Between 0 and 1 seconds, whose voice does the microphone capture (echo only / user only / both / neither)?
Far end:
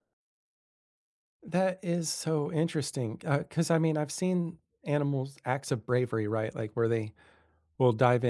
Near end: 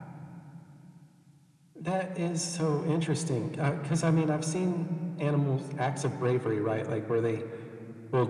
neither